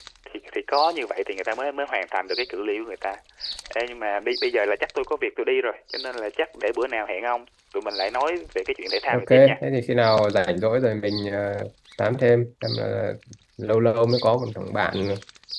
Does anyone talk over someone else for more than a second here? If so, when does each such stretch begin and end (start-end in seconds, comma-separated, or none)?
none